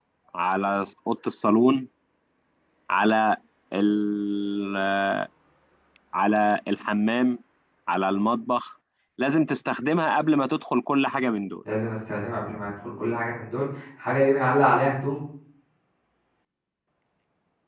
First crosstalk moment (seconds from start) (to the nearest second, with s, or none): none